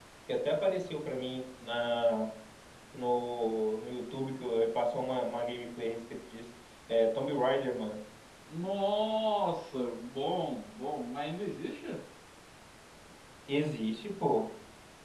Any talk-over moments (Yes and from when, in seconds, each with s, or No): No